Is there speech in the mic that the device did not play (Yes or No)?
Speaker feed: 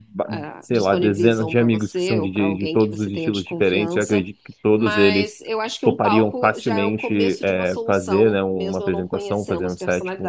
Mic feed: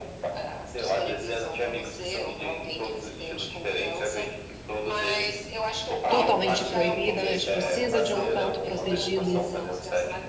Yes